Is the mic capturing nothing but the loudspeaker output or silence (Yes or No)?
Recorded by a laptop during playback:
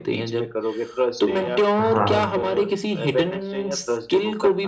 No